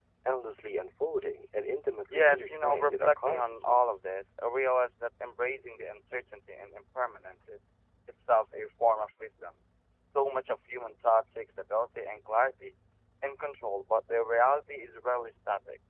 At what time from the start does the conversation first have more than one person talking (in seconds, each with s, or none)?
2.1 s